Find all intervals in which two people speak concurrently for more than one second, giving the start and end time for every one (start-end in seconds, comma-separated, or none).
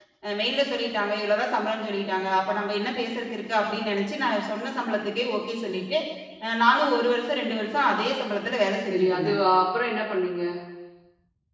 none